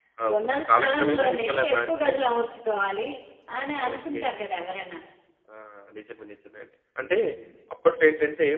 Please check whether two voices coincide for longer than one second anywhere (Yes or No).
Yes